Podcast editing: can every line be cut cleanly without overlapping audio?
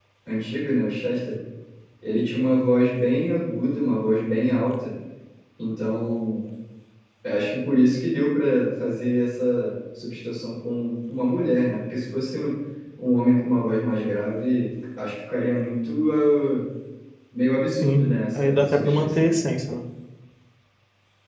No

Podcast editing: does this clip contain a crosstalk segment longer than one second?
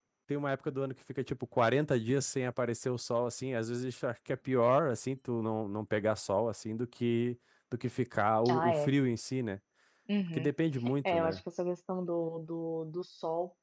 No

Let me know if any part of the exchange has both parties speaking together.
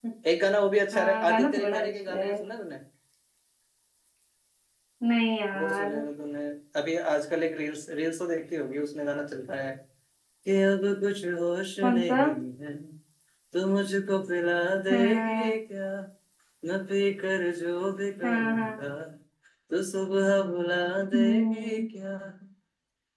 Yes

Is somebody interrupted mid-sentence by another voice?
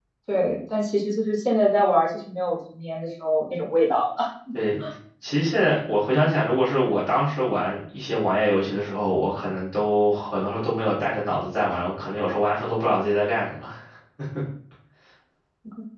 No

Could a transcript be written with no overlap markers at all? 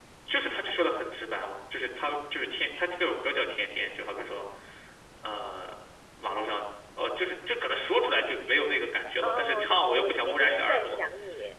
No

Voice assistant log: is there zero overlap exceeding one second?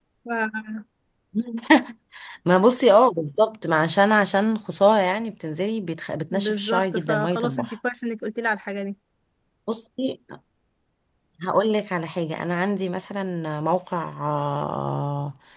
No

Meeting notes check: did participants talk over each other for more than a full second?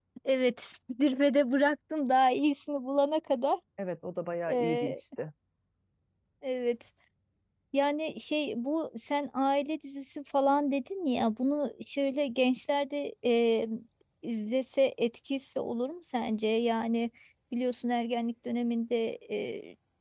No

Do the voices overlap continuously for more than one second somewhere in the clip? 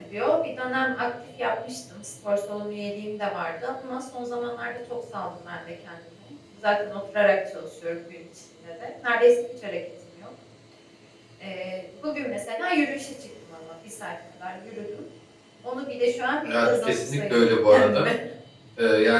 Yes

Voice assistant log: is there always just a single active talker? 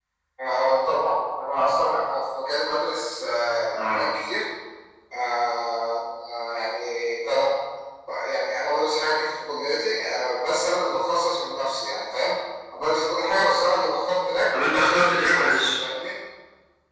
No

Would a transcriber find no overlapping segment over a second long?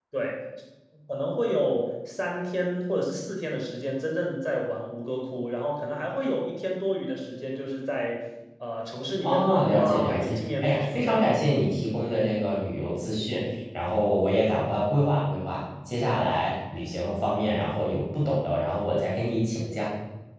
No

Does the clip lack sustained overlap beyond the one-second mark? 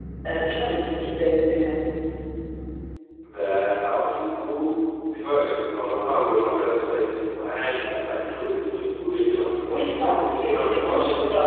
No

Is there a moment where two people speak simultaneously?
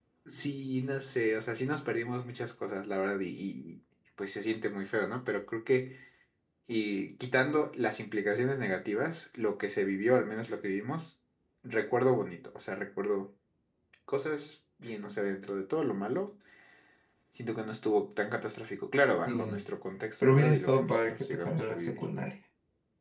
Yes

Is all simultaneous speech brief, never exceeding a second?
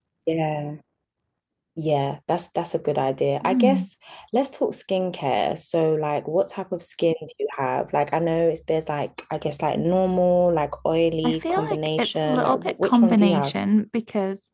No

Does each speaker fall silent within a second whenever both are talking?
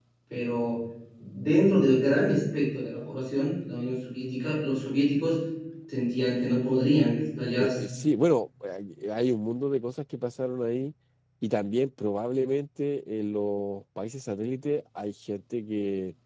Yes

